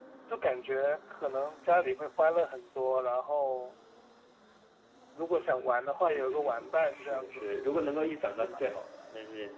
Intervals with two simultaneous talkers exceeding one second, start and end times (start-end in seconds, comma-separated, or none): 6.1-7.5